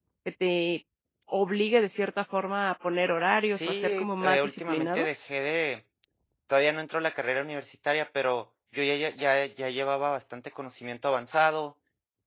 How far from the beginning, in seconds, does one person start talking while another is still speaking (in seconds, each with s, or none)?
3.5 s